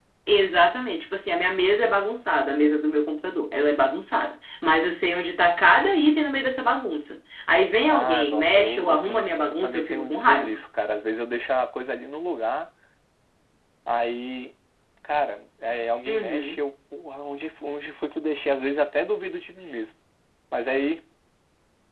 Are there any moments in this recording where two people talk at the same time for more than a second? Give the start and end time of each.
7.8-10.6

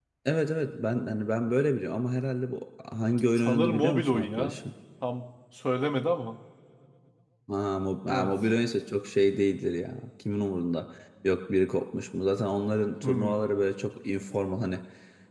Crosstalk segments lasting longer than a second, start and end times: 3.4-4.6

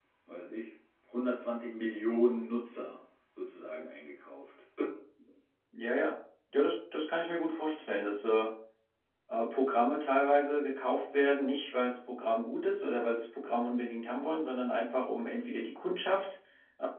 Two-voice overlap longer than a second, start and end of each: none

